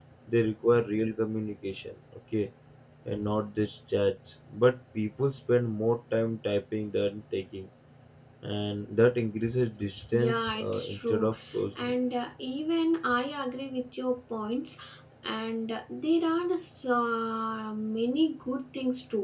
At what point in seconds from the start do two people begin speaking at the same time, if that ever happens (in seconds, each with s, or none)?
10.1 s